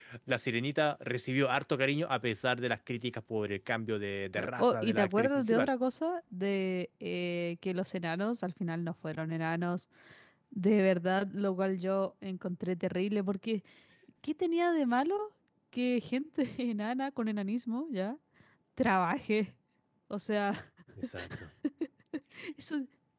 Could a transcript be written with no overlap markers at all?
No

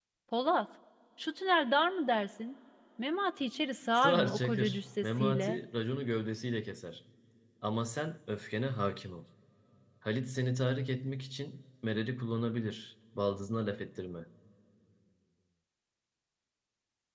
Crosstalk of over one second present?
Yes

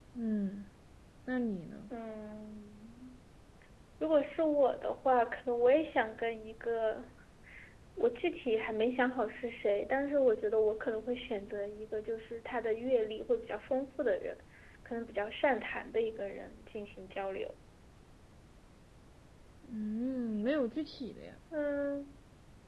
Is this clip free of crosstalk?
Yes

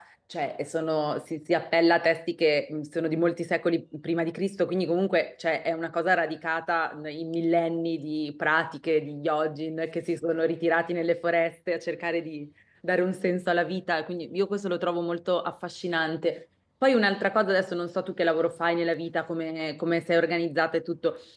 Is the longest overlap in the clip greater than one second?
No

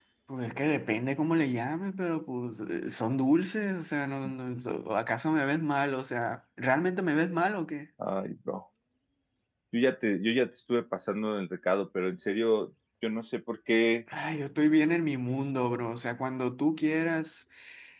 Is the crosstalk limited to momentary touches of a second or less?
Yes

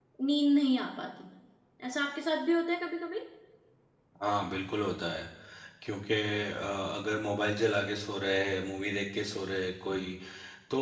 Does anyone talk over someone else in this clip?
No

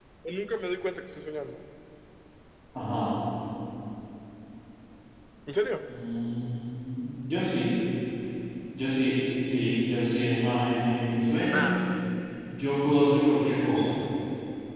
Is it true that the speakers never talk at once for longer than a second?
Yes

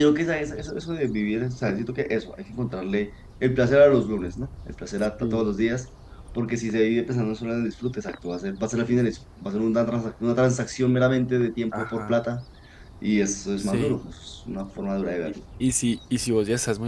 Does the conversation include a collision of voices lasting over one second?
No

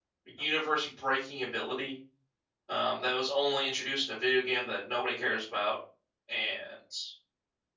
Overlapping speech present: No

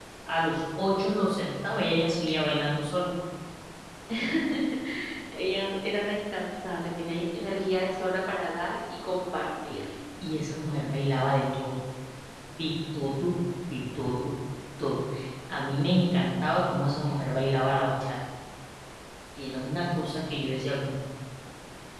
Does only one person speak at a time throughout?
Yes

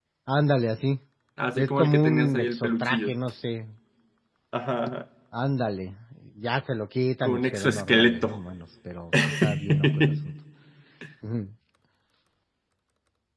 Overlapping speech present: Yes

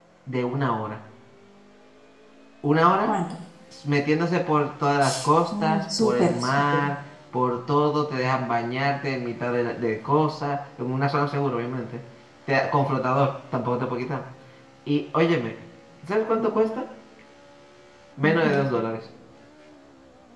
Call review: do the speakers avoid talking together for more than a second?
No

